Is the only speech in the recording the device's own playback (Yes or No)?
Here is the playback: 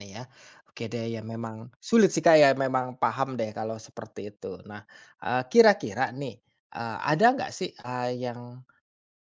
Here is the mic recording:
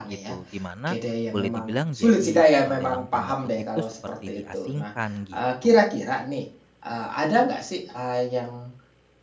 No